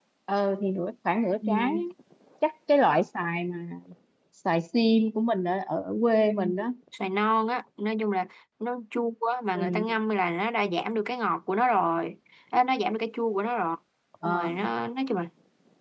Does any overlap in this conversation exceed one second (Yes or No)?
No